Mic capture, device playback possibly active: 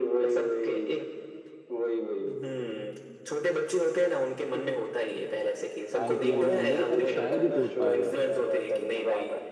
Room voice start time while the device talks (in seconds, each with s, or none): 6.0 s